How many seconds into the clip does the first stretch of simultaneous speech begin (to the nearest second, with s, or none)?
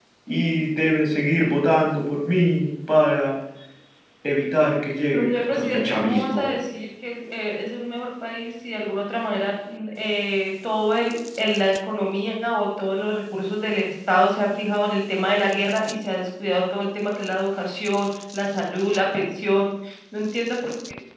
5 s